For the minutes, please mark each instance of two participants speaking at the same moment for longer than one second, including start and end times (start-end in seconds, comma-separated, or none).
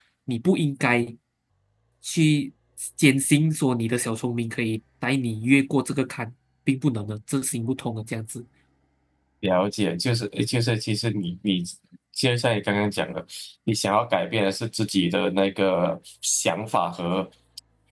none